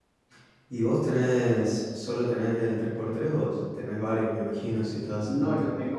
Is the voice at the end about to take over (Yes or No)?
Yes